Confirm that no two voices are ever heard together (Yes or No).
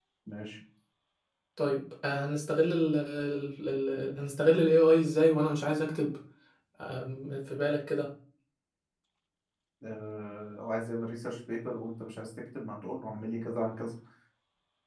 Yes